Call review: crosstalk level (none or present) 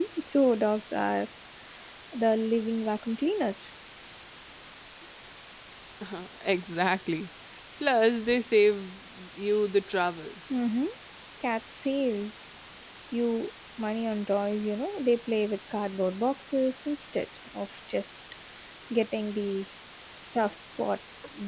none